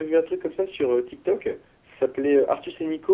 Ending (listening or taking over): listening